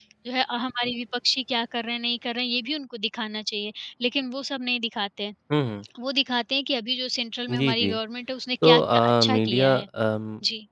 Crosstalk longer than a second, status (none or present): present